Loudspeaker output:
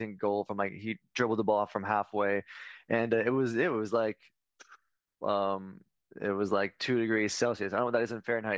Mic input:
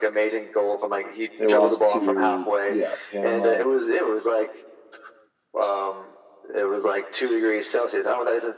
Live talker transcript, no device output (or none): they lost to yeah Panama